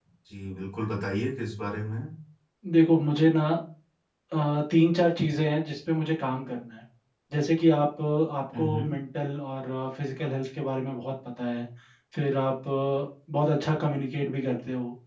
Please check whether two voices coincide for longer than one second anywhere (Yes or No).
No